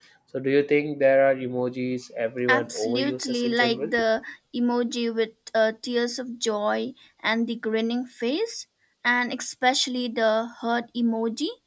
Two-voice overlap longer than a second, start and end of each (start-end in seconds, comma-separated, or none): 2.5-3.9